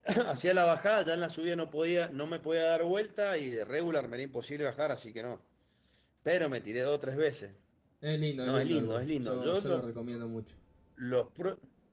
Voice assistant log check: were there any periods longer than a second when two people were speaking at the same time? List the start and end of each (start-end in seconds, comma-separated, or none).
8.4-9.8